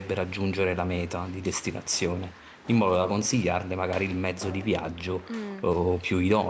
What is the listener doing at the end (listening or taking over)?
listening